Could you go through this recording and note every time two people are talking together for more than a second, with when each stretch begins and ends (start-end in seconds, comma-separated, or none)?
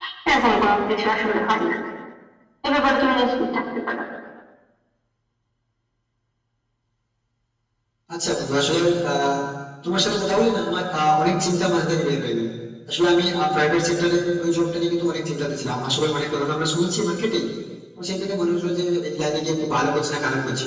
none